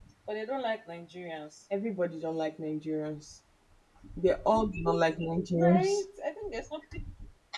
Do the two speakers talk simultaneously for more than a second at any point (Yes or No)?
No